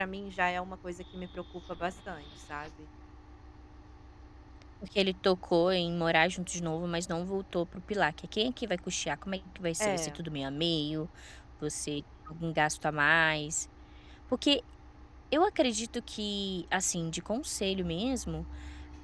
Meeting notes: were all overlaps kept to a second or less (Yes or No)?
Yes